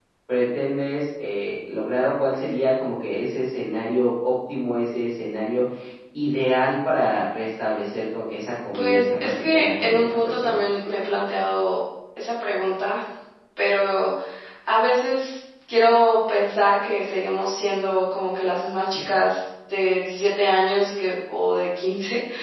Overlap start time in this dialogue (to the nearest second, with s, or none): 9 s